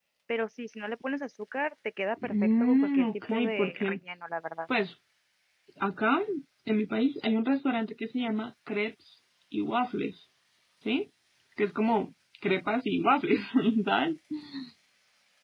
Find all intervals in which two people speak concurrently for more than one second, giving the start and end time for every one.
2.2-4.0

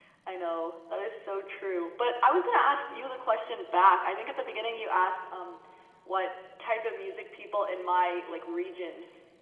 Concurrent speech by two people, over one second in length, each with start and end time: none

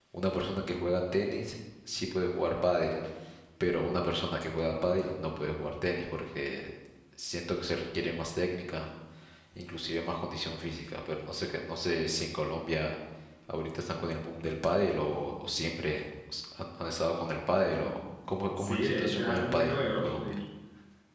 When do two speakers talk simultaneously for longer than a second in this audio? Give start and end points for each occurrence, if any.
18.6-20.4

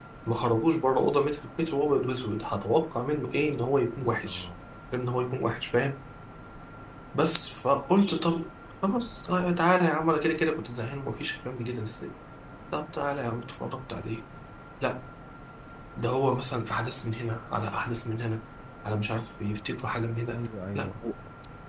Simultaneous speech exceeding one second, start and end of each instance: none

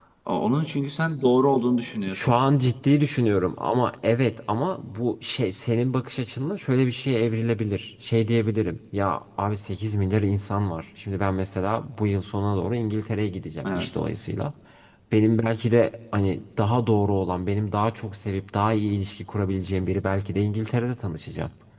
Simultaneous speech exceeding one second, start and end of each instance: none

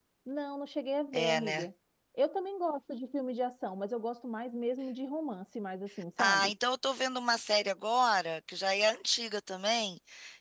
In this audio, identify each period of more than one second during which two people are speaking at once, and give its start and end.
none

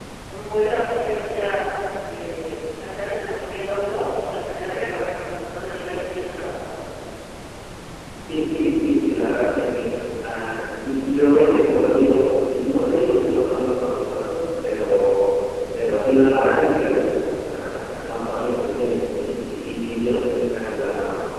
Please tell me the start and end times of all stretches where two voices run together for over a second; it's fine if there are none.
none

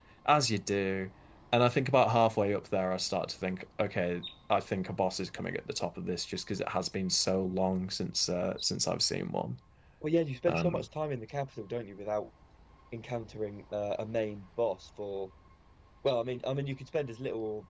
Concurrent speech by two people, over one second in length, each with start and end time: none

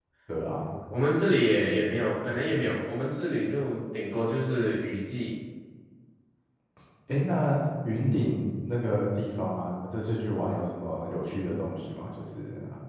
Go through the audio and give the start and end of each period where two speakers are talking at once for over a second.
none

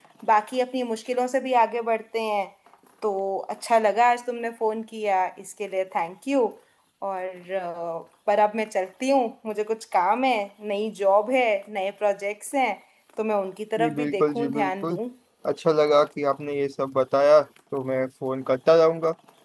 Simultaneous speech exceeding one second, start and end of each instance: 13.8-15.0

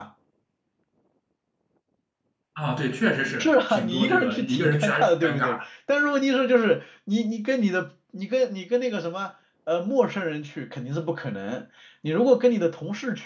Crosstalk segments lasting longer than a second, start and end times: 3.4-5.6

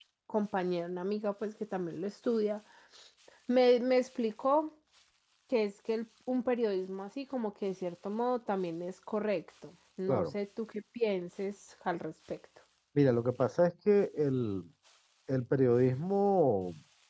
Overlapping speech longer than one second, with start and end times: none

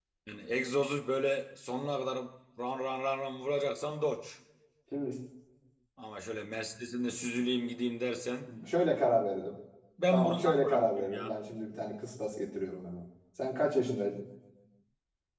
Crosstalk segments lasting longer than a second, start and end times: 10.1-11.3

